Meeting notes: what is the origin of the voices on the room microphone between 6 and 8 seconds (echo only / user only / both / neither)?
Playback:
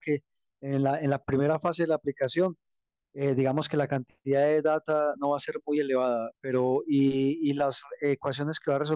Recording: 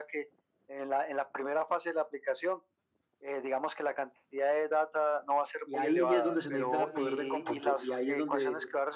both